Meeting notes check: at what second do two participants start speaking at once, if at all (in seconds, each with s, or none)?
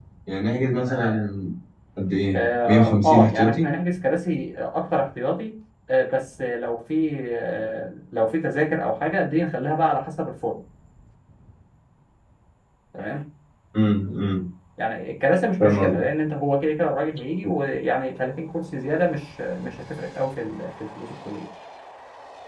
2.3 s